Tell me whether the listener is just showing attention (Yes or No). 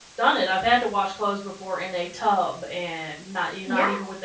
Yes